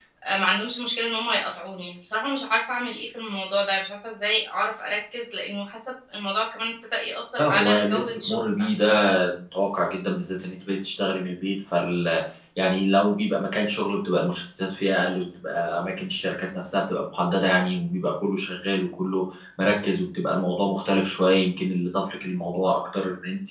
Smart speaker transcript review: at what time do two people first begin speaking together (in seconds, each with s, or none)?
7.4 s